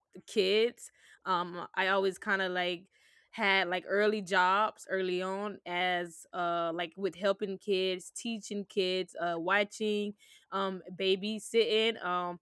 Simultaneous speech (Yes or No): No